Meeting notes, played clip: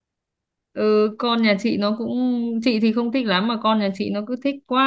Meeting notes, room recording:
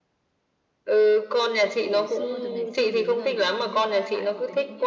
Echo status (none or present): present